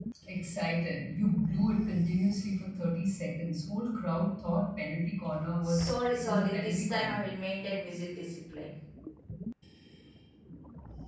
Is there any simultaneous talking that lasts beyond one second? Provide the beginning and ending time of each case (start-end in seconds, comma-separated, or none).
5.6-7.2